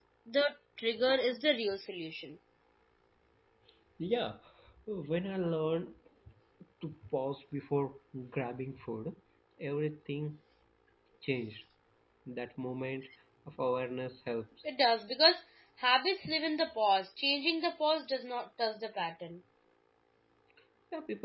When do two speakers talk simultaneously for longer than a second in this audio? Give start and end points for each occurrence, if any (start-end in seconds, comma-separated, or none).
none